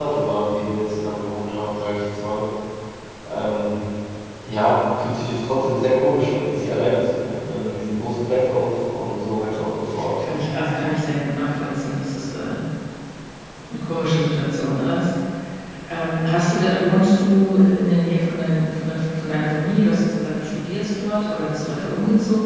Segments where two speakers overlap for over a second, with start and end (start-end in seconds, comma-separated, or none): none